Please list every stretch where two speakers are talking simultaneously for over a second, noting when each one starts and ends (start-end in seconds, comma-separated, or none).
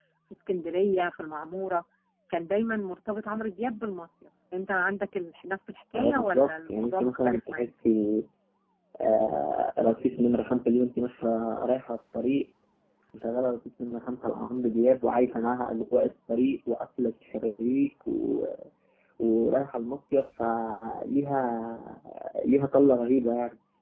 6.0-7.7